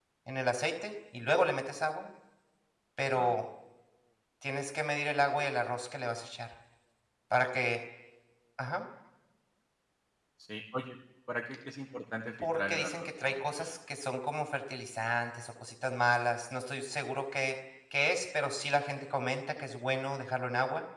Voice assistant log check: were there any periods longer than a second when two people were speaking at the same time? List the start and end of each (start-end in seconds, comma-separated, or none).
12.4-13.7